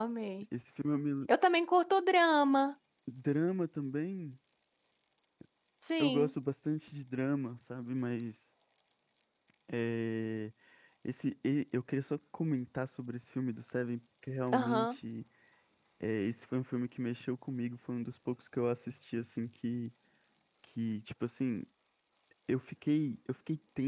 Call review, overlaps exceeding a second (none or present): none